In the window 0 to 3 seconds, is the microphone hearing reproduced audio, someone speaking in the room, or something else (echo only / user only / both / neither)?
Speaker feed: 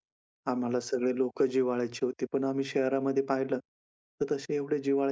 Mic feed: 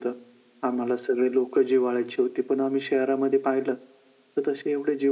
echo only